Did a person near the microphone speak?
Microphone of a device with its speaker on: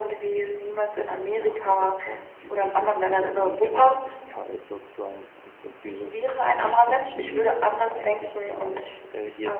Yes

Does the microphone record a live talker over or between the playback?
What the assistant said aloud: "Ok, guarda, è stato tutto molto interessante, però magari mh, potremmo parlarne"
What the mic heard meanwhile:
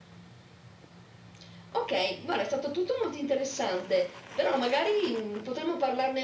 No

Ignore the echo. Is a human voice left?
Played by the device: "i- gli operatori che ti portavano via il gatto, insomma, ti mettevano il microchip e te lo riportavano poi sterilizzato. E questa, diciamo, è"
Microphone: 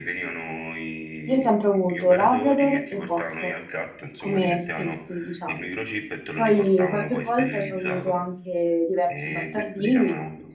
Yes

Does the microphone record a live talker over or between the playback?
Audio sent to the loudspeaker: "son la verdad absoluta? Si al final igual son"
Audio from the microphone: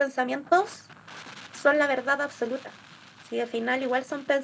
No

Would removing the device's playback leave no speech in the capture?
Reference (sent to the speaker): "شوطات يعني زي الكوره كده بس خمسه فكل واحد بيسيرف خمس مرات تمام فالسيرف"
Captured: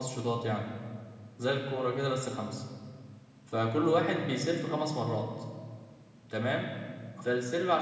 Yes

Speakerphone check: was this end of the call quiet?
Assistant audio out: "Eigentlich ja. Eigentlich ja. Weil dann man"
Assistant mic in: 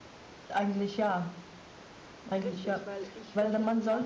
No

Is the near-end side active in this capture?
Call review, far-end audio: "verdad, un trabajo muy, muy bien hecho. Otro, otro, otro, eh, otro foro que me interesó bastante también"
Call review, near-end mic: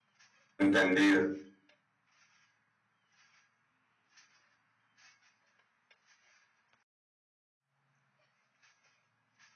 Yes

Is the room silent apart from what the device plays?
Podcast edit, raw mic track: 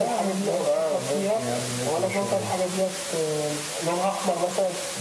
Yes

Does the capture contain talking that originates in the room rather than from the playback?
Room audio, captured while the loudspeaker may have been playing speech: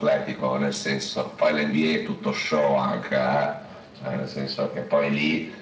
No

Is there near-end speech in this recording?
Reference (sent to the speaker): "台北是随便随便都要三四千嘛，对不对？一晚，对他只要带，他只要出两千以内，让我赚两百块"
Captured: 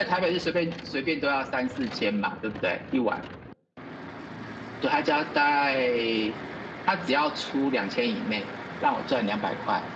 No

